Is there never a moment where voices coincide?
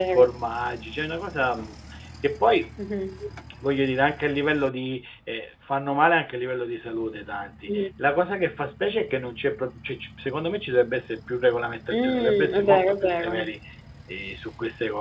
No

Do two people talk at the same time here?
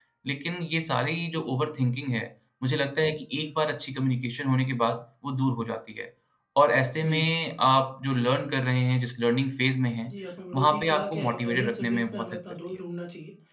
Yes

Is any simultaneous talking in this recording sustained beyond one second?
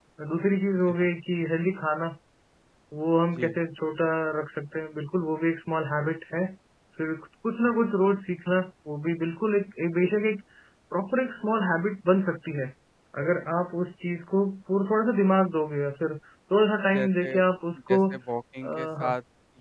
No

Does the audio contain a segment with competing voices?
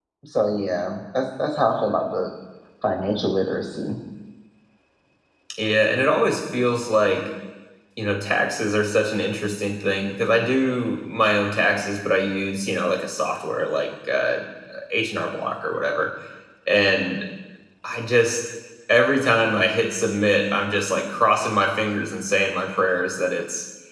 No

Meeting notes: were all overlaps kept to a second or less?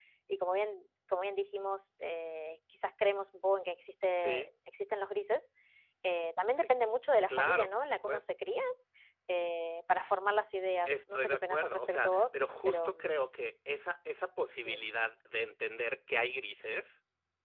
No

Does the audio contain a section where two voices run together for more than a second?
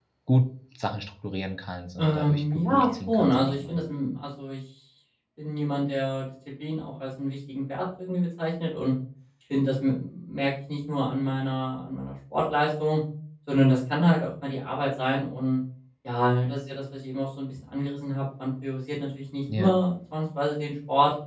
Yes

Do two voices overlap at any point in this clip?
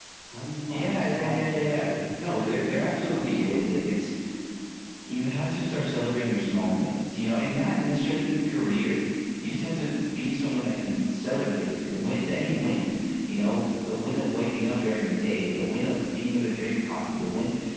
Yes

